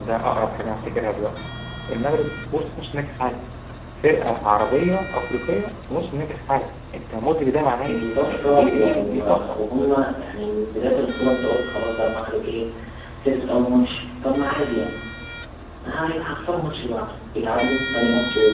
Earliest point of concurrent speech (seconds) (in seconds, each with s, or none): 7.8 s